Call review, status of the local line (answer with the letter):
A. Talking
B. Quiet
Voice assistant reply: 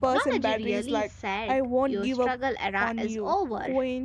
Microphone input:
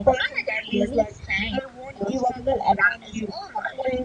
B